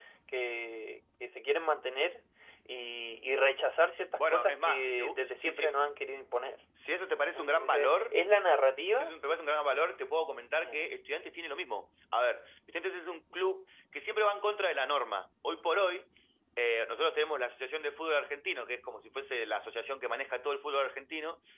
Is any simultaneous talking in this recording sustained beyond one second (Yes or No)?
Yes